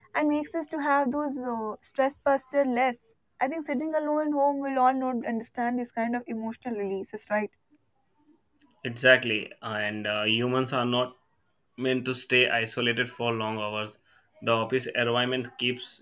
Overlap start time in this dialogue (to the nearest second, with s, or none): none